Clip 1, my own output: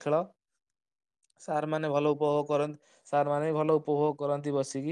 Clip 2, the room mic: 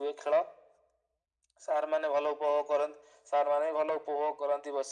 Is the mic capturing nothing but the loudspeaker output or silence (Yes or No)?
Yes